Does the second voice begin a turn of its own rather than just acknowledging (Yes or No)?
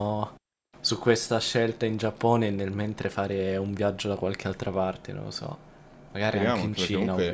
Yes